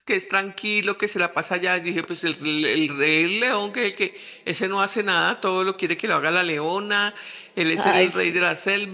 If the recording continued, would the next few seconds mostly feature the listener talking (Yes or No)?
No